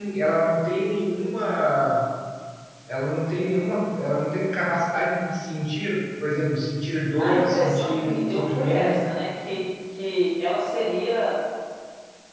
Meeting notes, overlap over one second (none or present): present